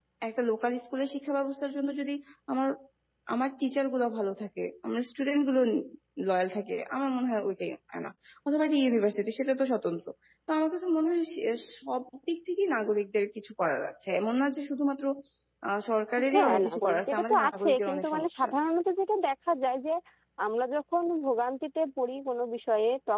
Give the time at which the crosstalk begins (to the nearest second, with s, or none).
16 s